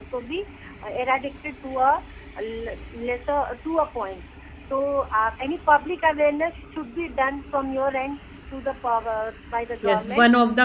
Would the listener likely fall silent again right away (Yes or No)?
No